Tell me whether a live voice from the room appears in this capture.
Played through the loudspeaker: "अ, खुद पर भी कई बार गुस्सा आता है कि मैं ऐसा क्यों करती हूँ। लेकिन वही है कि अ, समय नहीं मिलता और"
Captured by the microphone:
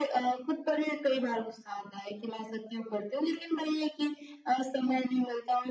No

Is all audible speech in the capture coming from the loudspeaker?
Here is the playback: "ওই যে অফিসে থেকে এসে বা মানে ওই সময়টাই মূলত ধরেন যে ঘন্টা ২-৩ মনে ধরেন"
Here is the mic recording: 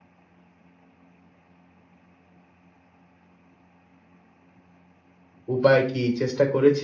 No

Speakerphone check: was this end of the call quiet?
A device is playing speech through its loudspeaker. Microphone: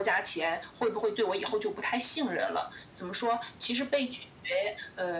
Yes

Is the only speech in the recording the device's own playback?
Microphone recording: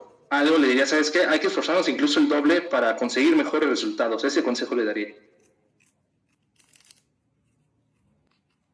Yes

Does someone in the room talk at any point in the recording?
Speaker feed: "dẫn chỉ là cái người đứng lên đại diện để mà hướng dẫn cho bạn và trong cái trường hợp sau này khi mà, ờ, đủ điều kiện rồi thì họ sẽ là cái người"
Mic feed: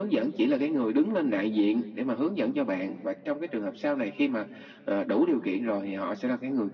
No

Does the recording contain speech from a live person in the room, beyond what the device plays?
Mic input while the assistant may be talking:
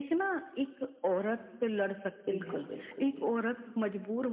Yes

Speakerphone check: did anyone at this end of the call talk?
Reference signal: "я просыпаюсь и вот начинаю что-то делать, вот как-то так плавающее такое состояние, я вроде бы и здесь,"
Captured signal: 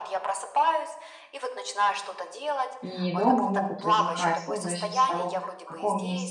Yes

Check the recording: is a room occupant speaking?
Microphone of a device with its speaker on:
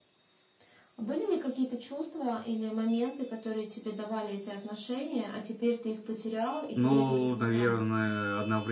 Yes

